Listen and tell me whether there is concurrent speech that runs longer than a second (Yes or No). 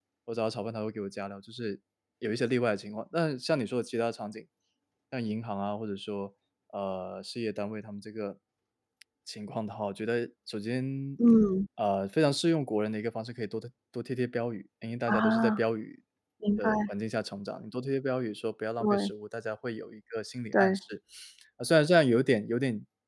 No